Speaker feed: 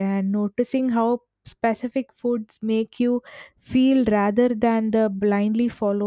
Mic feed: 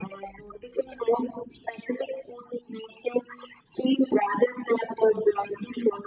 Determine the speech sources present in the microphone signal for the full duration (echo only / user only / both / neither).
echo only